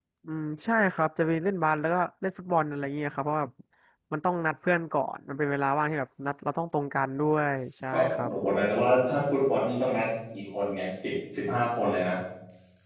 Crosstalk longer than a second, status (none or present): none